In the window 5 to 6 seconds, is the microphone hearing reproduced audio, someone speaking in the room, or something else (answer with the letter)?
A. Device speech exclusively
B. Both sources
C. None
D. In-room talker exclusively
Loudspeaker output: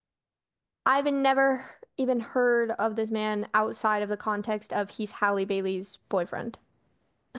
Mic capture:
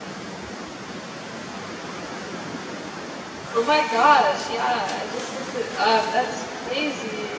D